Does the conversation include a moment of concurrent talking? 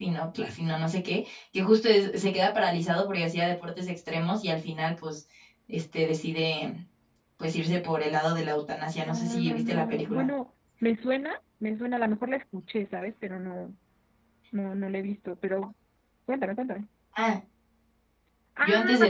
Yes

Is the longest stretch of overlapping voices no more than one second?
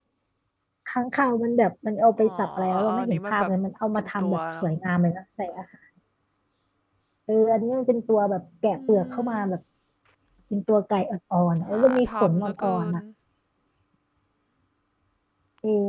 No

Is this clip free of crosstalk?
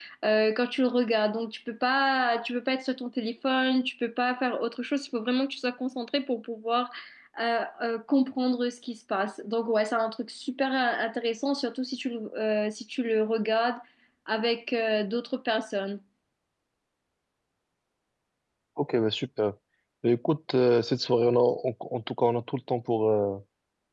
Yes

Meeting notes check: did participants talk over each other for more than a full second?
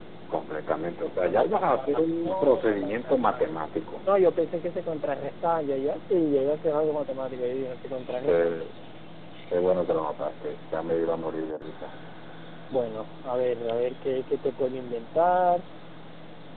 Yes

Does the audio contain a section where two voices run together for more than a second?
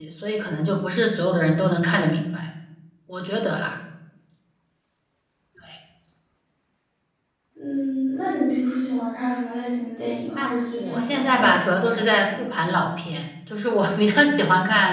Yes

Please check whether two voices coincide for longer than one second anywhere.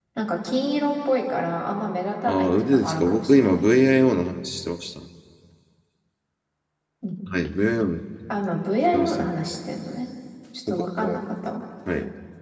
Yes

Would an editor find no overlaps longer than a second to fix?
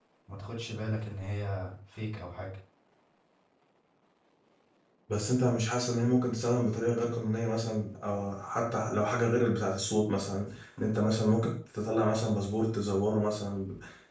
Yes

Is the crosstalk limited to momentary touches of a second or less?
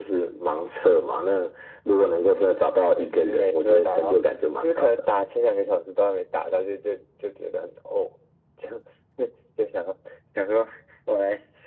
No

